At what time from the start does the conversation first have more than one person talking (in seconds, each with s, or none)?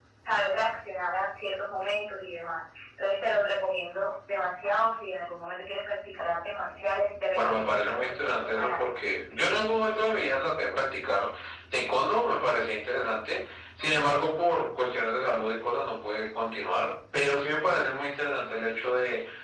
7.3 s